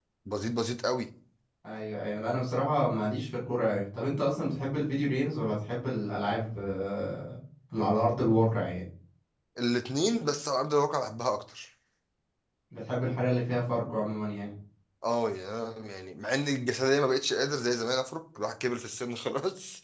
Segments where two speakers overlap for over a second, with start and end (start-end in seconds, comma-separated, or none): none